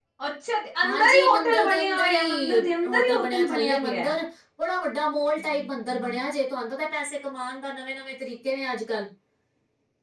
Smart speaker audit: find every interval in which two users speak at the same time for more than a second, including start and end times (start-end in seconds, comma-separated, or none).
0.8-4.1